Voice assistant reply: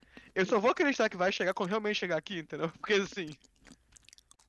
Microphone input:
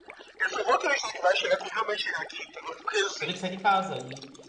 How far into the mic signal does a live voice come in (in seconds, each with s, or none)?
3.2 s